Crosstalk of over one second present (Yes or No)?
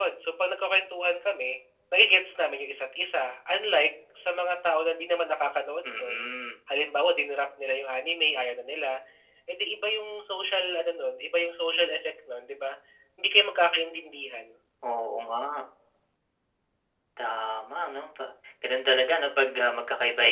No